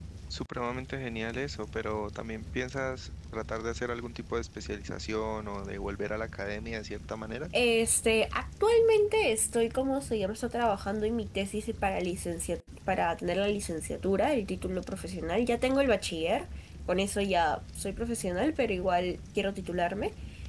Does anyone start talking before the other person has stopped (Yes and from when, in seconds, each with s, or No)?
No